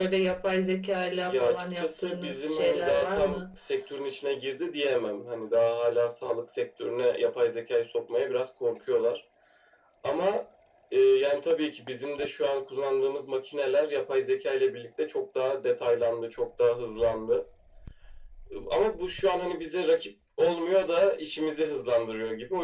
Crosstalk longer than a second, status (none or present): present